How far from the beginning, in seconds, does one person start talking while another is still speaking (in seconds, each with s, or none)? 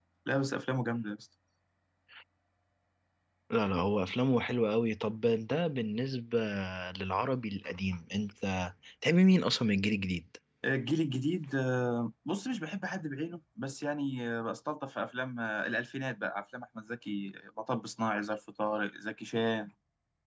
none